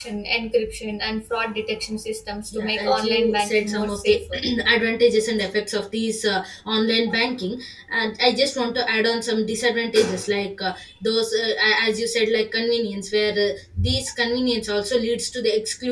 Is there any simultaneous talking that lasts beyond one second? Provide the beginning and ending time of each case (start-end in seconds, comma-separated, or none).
2.5-4.2